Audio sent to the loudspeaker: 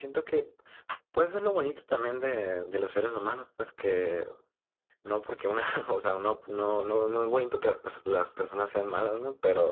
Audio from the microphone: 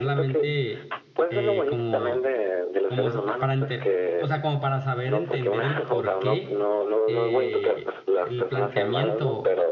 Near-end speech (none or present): present